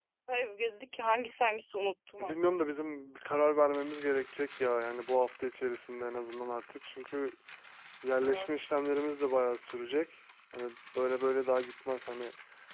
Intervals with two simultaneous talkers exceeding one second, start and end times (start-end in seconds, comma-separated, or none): none